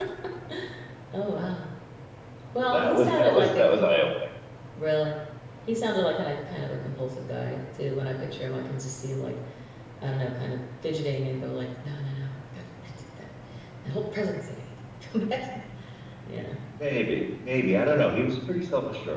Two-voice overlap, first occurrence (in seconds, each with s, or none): 2.6 s